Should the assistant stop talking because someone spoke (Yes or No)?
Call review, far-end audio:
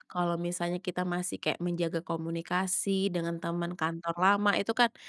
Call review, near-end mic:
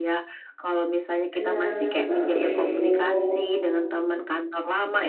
Yes